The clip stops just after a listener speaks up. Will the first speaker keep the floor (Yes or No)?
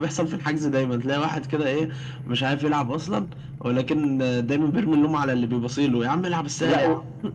No